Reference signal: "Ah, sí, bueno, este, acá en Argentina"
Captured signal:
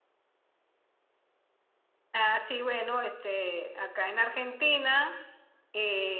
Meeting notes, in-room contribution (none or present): none